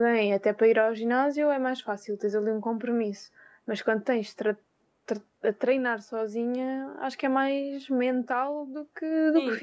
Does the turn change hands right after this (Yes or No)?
Yes